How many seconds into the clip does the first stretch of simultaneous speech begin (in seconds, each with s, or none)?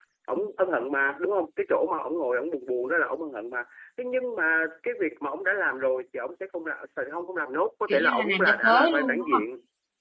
7.9 s